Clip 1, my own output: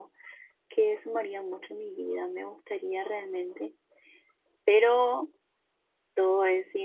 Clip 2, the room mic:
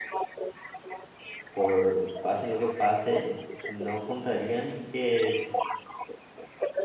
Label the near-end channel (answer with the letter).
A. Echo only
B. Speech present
B